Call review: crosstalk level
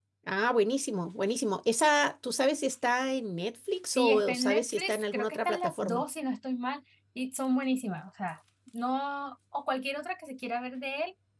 present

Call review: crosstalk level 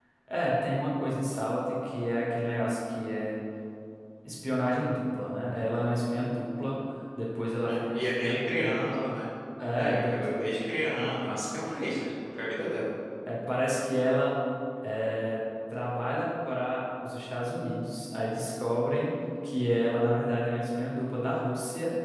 present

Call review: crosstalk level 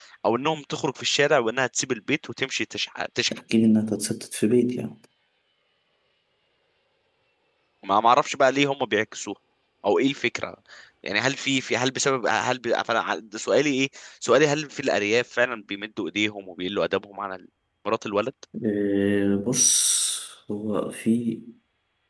none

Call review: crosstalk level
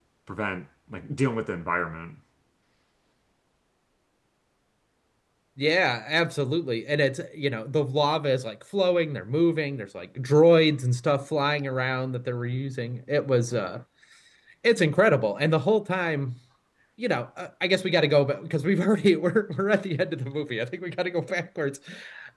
none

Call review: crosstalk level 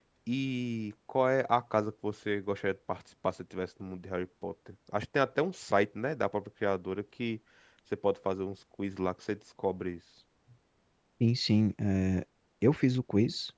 none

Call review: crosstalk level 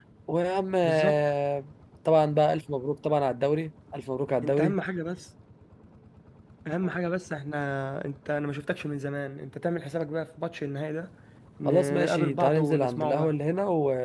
present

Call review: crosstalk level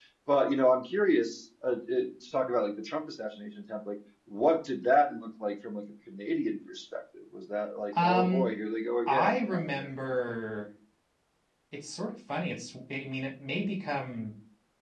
present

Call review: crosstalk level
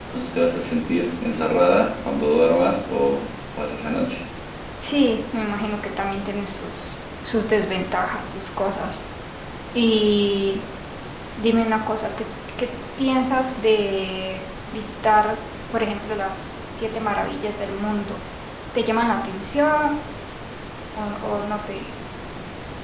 none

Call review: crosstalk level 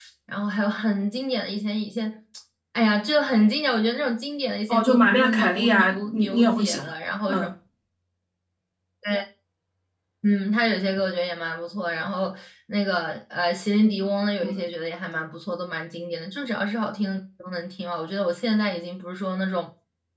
present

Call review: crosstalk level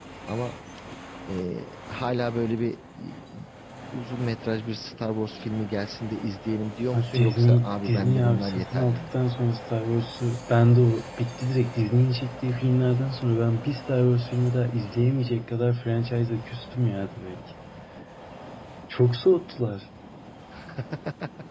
present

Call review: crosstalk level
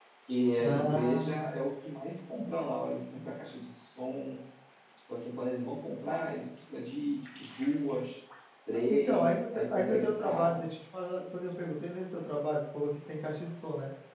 present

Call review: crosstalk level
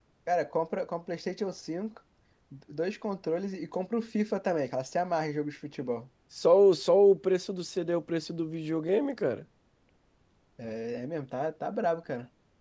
none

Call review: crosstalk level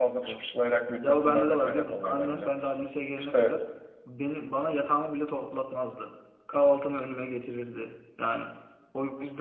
present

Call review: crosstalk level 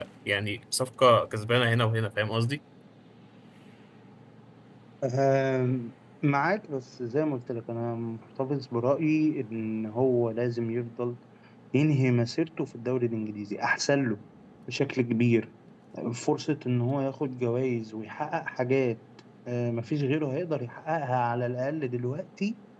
none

